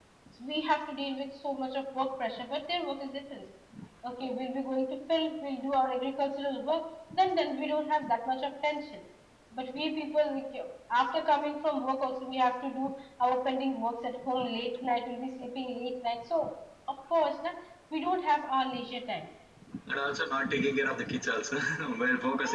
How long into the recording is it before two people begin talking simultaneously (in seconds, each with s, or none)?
none